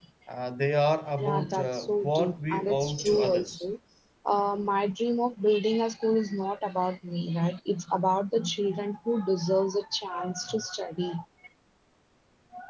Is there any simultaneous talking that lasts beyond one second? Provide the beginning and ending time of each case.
1.2-3.6

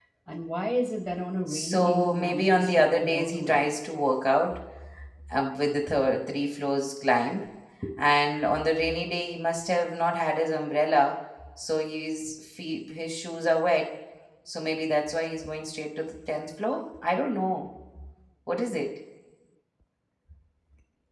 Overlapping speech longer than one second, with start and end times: 1.5-3.6

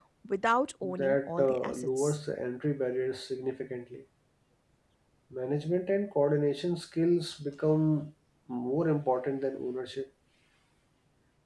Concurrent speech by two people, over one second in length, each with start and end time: 1.0-2.2

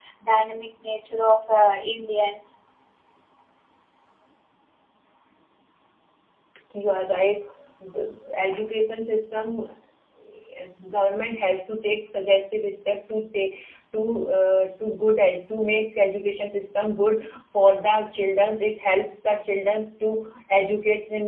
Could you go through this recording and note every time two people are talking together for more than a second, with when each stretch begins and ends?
none

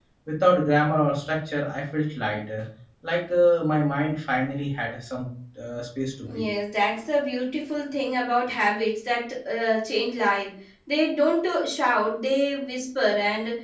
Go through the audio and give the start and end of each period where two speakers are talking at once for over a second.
none

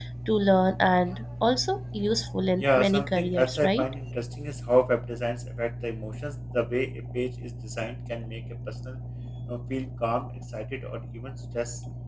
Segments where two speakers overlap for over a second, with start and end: 2.6-3.9

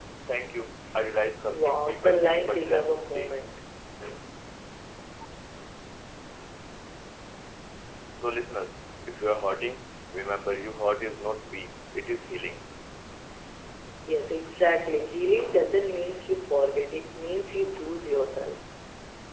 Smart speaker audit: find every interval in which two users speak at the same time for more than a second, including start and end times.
1.5-3.4

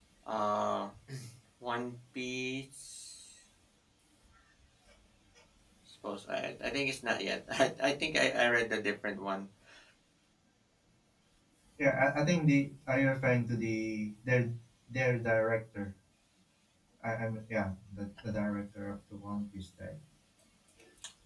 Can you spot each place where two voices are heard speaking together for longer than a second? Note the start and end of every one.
none

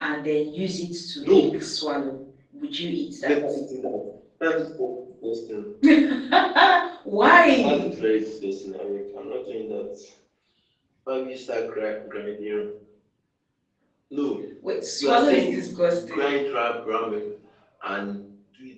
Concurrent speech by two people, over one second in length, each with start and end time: 15.0-16.3

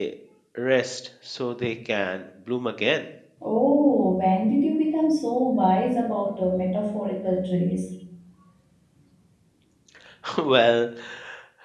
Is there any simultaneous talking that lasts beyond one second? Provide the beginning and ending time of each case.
none

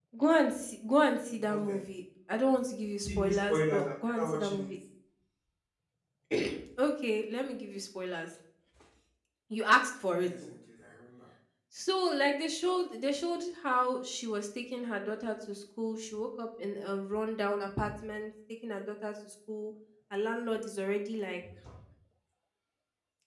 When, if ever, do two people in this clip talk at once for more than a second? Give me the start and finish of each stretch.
3.0-4.7

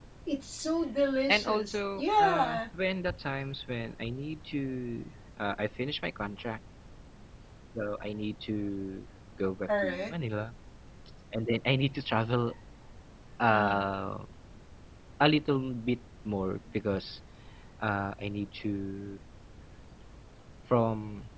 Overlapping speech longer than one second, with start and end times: 1.3-2.6

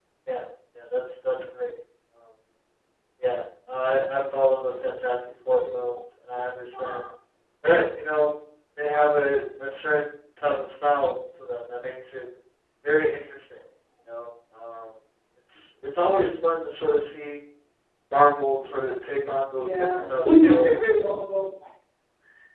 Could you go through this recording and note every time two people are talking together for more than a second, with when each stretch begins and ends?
19.6-20.8

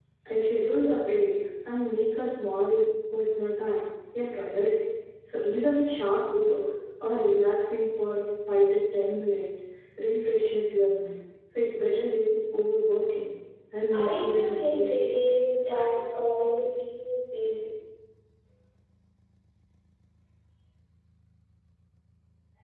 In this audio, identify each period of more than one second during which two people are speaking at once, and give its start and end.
13.9-15.1

